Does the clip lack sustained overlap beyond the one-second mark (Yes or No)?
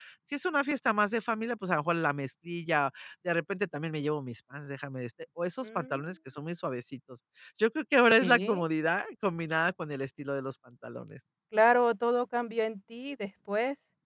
Yes